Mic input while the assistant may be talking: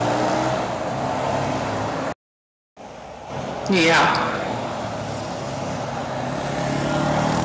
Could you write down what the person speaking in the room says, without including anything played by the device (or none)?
Yeah.